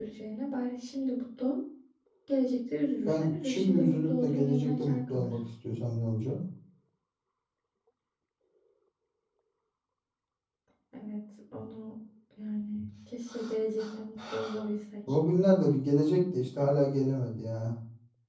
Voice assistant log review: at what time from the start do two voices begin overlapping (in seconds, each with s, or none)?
3.0 s